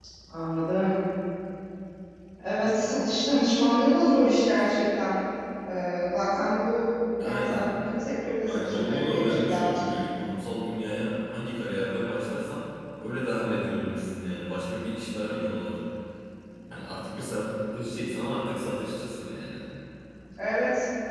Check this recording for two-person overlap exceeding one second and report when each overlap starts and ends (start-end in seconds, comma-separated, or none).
8.4-9.8